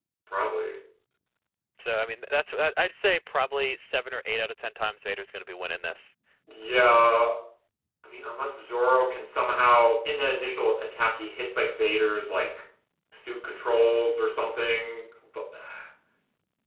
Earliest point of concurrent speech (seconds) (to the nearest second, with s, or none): none